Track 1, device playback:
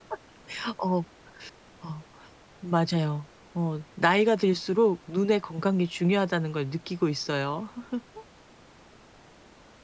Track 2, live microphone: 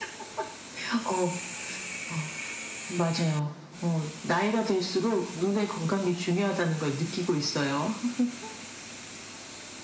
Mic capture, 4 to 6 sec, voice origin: echo only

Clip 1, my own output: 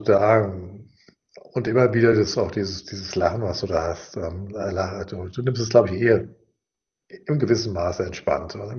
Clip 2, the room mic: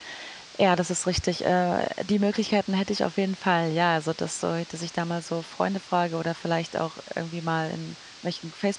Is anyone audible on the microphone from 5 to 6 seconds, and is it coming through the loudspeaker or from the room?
user only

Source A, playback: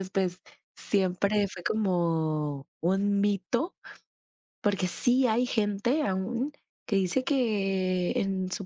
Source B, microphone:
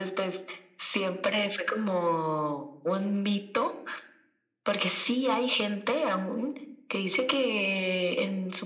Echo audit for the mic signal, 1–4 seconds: echo only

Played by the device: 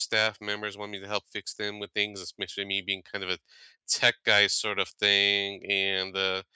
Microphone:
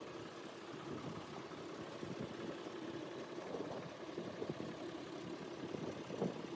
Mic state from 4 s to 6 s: neither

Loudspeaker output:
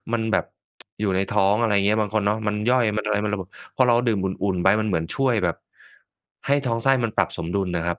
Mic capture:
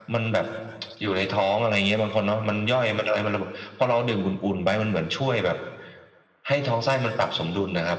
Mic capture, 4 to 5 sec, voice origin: echo only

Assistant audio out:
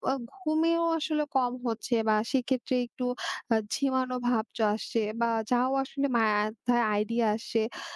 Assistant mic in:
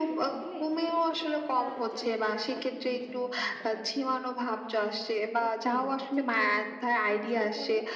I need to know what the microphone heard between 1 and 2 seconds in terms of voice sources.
both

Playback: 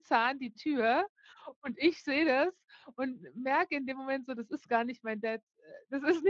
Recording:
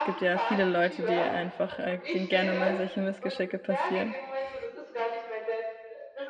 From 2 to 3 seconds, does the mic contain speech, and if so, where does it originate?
both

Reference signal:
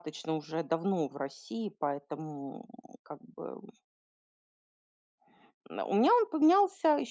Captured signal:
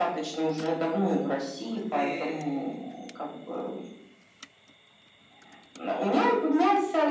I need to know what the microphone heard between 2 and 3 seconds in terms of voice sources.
both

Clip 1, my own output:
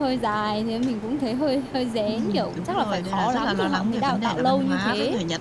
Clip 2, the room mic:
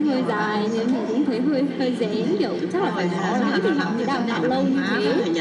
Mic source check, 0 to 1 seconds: both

